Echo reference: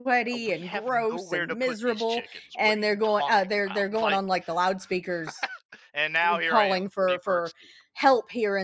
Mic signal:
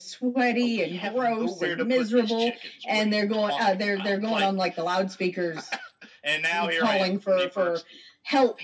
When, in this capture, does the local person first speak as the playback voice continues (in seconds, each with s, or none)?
none